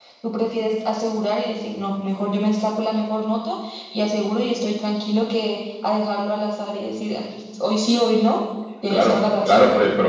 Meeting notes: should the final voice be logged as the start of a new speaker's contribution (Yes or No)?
Yes